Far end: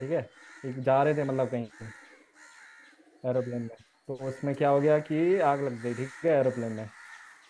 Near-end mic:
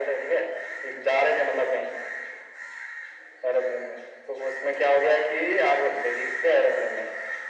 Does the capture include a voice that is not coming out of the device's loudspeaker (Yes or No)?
No